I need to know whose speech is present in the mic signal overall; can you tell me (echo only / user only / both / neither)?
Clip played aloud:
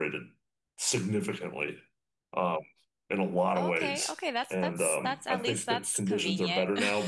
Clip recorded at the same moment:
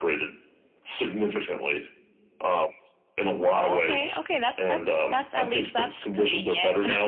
echo only